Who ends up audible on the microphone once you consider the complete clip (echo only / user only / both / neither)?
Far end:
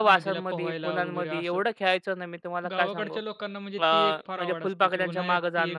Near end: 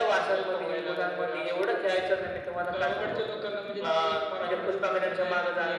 echo only